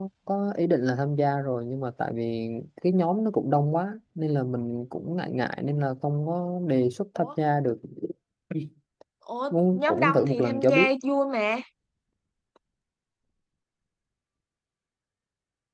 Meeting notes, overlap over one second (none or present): present